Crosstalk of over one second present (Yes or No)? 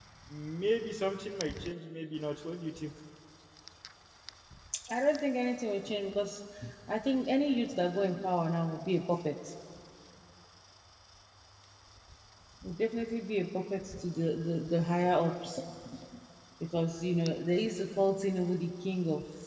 No